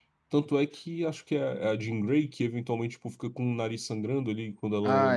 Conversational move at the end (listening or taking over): taking over